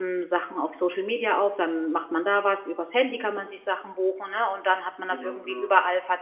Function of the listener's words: listening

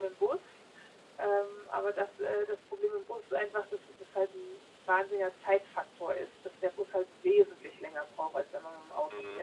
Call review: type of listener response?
taking over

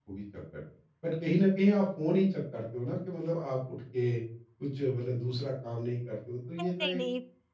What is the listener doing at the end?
taking over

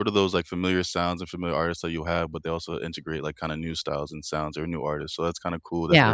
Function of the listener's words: taking over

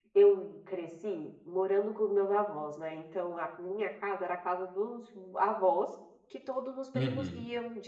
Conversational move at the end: listening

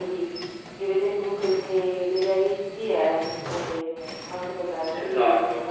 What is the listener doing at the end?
taking over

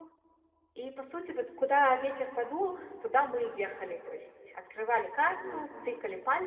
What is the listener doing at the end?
listening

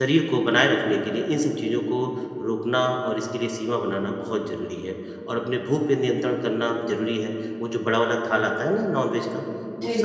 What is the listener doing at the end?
listening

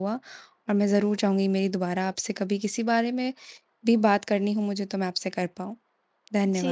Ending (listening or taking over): taking over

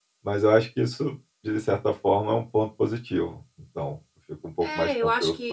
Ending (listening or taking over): taking over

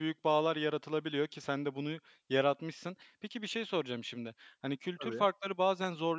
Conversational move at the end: listening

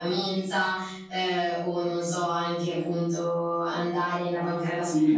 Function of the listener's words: taking over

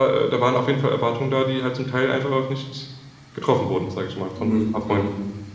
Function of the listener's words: taking over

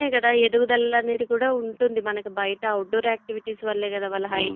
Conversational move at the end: taking over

